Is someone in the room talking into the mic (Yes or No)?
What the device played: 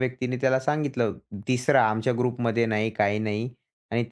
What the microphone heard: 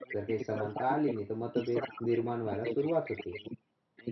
Yes